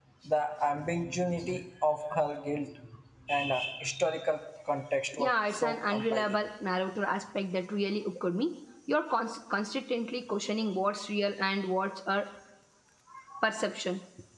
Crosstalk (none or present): present